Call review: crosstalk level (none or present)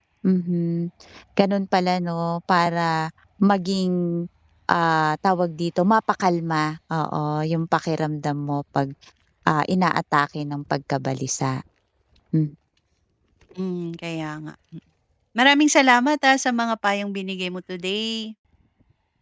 none